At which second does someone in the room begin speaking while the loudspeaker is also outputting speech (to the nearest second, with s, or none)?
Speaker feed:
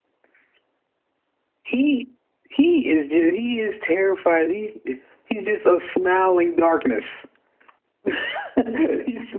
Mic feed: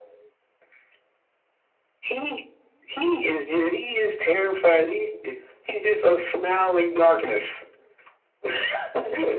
none